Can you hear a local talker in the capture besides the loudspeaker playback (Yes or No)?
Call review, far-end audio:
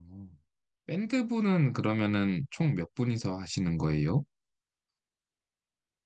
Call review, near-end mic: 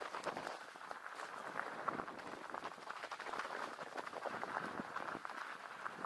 No